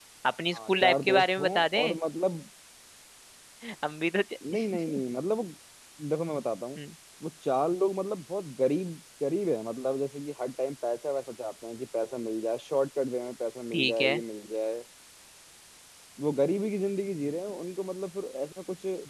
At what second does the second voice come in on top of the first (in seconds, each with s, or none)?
0.5 s